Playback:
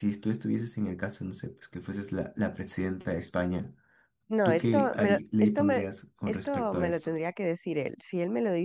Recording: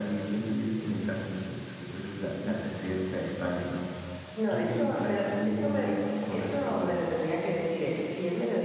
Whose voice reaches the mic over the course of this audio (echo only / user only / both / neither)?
echo only